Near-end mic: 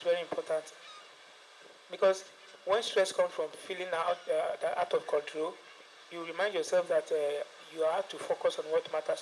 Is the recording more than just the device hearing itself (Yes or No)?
No